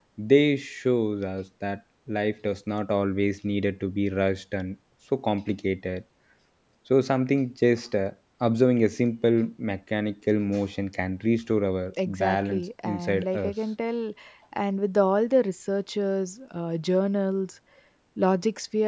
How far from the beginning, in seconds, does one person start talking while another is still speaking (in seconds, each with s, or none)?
12.0 s